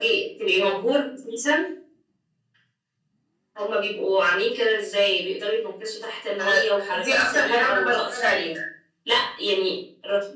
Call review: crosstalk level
present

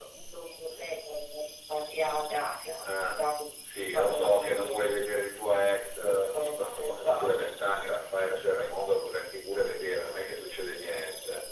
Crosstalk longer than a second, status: present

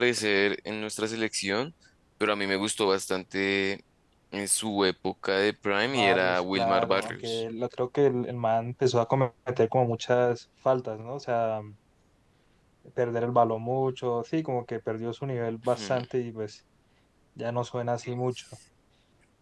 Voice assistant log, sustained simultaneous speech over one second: present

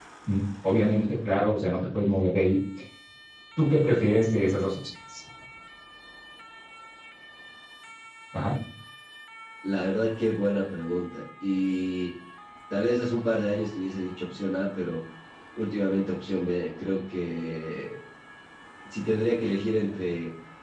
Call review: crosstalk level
none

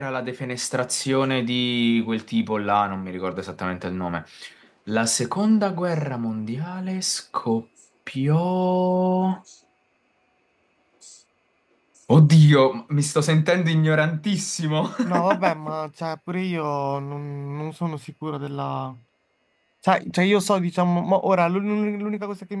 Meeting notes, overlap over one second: none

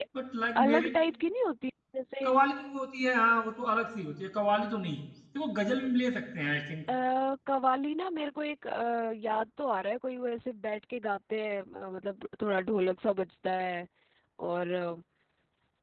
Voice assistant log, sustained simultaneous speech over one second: none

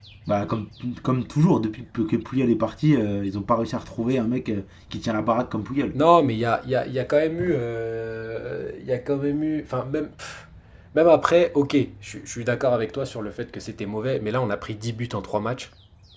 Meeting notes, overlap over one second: none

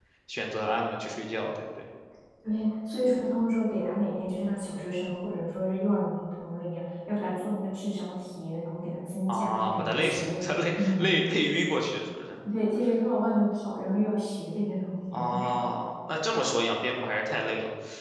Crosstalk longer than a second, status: present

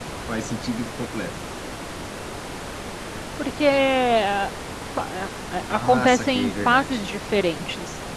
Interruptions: present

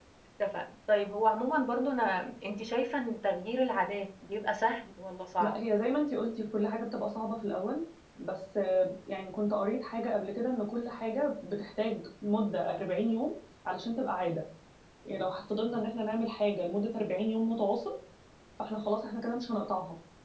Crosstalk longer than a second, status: none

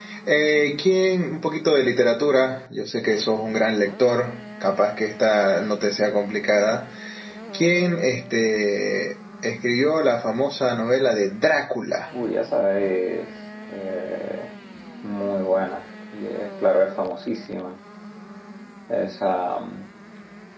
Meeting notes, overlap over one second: none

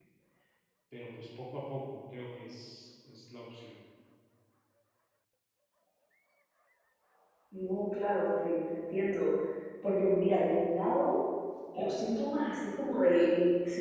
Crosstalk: none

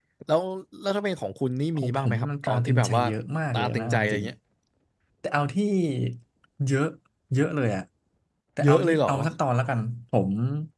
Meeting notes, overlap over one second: present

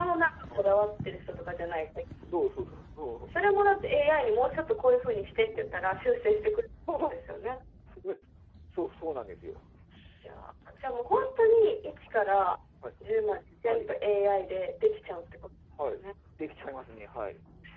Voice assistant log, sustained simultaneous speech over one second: none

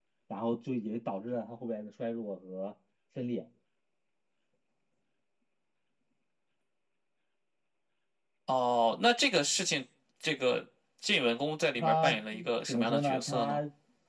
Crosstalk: present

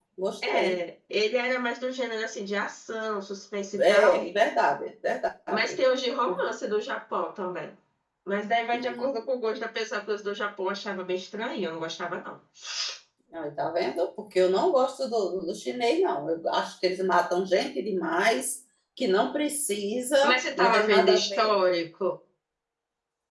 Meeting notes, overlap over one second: present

